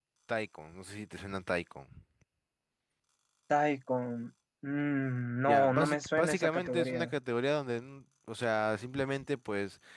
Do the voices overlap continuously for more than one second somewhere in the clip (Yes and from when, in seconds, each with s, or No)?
Yes, from 5.5 s